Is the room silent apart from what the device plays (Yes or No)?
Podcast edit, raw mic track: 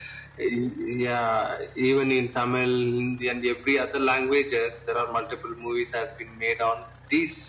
Yes